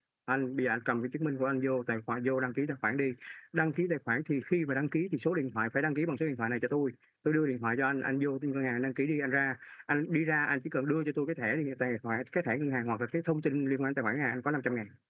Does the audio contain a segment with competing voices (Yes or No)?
No